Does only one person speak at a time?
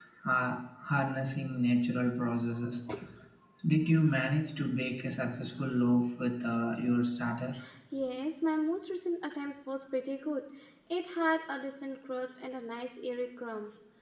Yes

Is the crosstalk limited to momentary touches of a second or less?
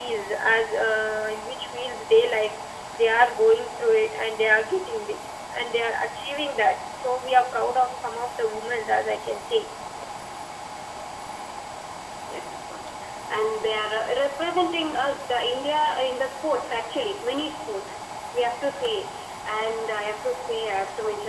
Yes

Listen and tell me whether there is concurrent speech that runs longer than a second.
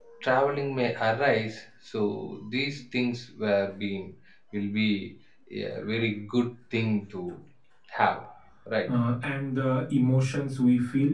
No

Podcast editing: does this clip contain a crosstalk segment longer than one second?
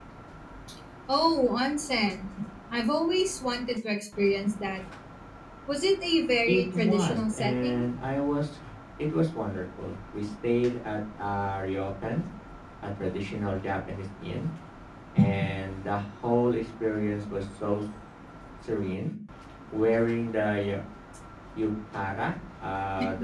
Yes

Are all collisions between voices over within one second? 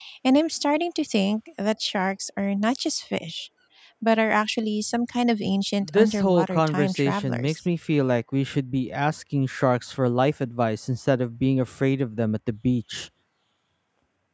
No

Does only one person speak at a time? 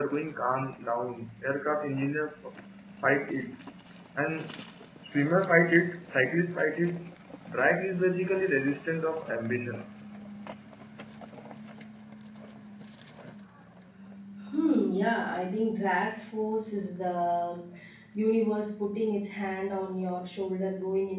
Yes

